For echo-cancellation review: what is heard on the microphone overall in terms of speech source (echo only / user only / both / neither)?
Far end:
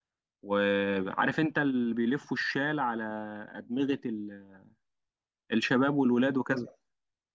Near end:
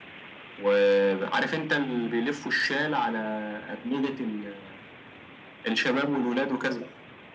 echo only